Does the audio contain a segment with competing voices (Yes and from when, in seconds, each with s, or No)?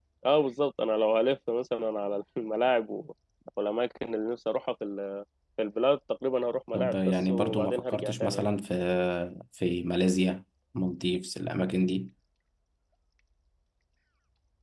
Yes, from 6.7 s